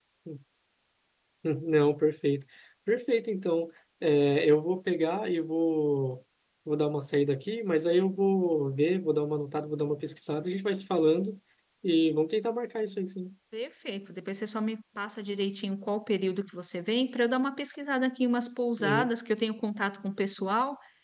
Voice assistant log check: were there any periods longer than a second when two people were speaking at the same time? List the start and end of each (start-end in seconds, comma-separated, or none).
none